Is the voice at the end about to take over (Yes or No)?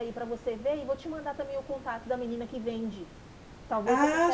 Yes